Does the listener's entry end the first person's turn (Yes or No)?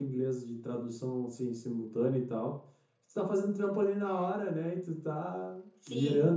No